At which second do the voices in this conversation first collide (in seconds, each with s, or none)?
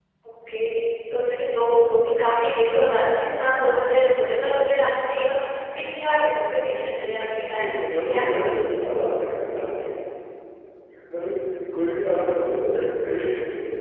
7.5 s